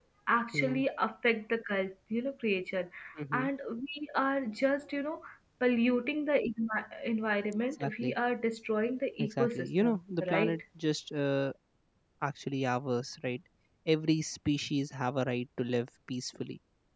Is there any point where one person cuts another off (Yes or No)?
Yes